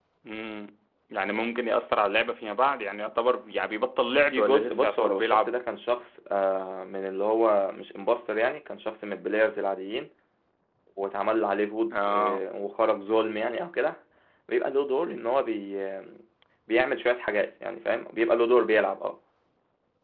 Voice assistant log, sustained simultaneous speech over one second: present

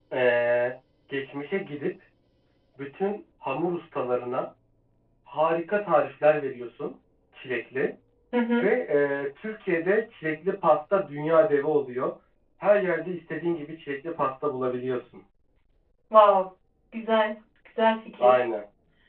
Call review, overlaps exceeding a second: none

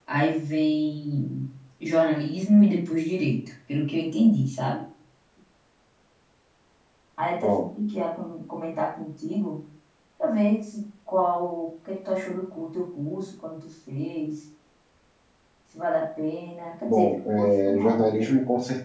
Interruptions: present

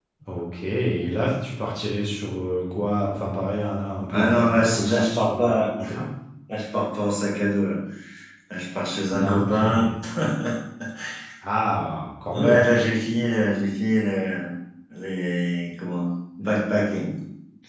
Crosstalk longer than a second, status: present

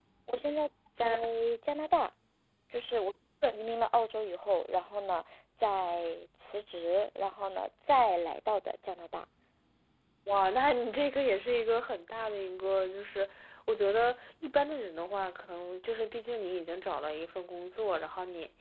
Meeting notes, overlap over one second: none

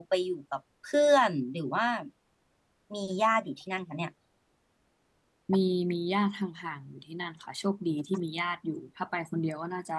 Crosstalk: none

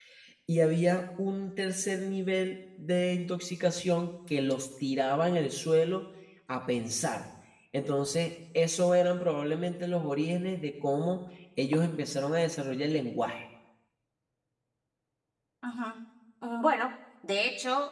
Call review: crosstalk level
none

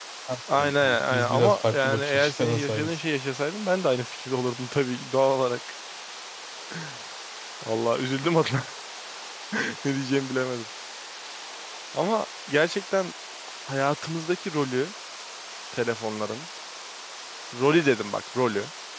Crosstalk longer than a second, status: present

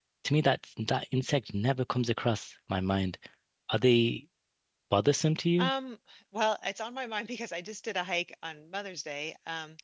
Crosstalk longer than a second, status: none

